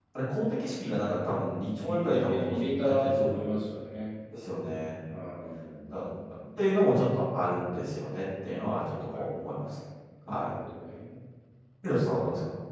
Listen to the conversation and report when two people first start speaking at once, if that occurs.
1.9 s

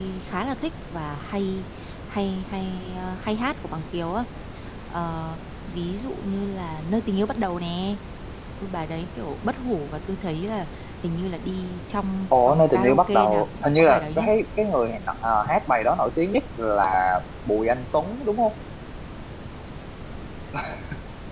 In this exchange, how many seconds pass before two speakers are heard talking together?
12.3 s

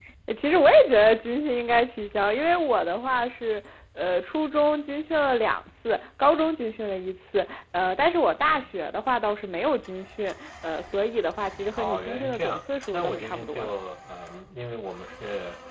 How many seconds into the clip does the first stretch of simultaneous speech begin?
11.8 s

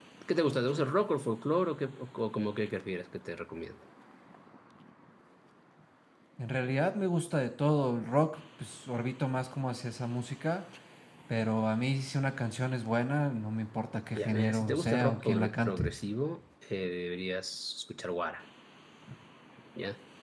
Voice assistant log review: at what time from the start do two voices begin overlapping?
14.1 s

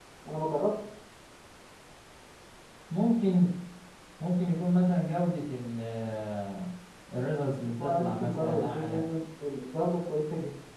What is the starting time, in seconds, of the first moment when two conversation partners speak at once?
7.8 s

